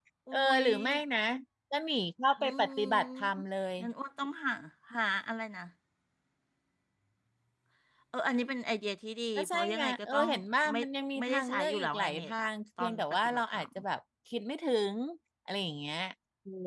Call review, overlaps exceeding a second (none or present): present